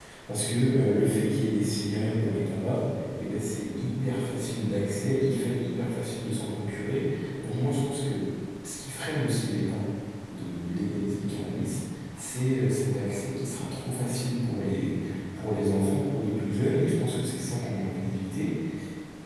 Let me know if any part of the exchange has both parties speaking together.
No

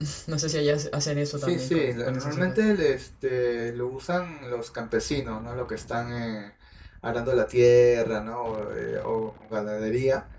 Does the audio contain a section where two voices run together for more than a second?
Yes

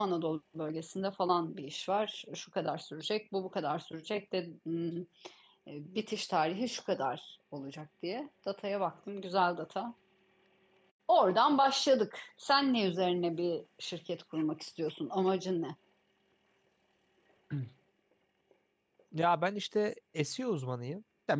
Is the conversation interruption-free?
Yes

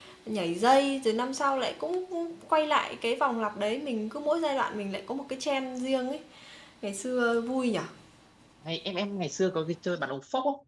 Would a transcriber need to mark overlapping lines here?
No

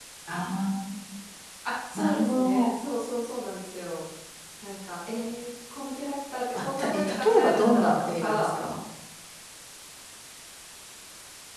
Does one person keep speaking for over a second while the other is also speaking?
Yes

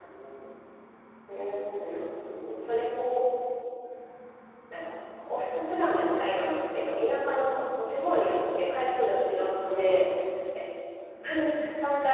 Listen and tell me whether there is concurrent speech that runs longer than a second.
No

